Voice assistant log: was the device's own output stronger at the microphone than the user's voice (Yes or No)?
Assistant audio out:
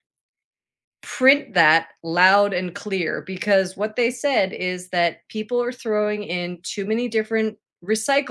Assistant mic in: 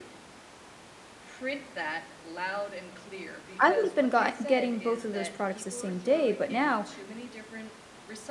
No